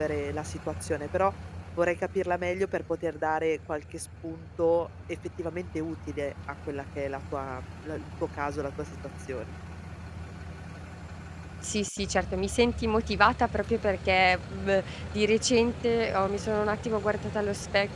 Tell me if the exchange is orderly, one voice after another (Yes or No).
Yes